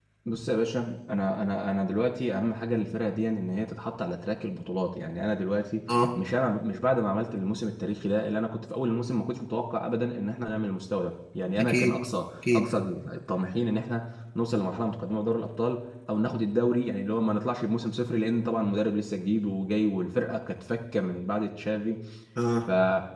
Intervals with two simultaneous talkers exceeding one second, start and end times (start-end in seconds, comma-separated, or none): none